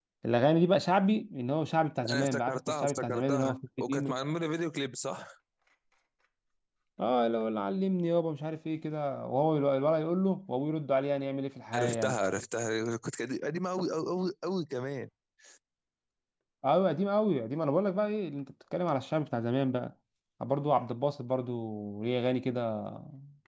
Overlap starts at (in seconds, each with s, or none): 2.1 s